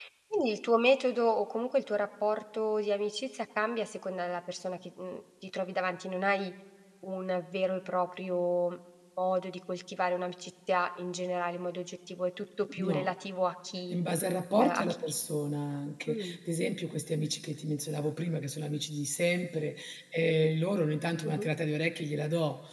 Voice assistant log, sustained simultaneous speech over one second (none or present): none